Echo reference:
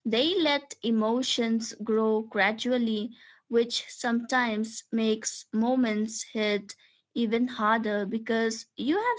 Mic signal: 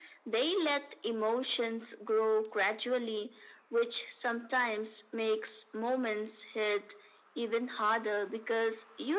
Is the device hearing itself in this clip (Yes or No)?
Yes